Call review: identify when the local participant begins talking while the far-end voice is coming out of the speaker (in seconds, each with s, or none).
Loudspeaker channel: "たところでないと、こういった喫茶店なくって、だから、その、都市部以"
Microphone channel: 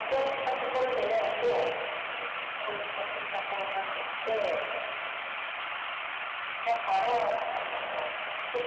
none